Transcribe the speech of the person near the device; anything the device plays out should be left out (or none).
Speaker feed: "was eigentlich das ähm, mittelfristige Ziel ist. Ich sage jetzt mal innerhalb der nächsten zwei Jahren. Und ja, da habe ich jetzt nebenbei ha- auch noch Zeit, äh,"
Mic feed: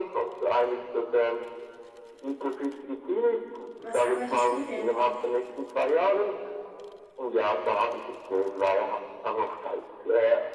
Was arbeitest du denn?